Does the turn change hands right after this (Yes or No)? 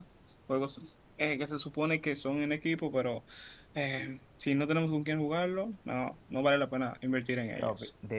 Yes